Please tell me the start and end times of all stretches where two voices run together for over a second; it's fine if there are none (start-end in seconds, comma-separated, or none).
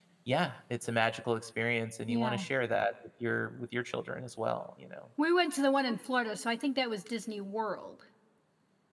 none